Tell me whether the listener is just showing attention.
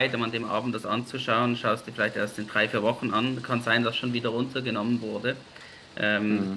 Yes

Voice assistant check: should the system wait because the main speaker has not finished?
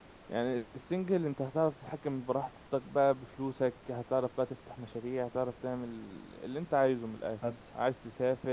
Yes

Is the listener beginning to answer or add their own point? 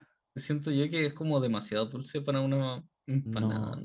Yes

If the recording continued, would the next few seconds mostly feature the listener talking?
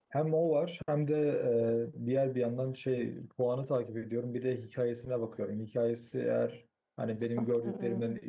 No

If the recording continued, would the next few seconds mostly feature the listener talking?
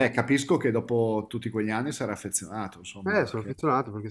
Yes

